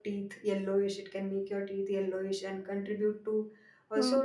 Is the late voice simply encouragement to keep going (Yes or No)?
Yes